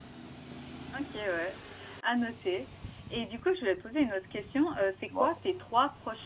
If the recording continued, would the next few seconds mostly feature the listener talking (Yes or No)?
No